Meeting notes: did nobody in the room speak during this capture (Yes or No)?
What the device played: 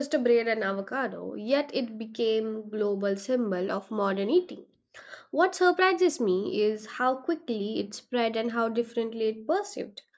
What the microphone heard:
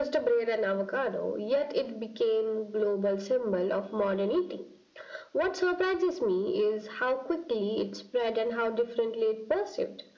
Yes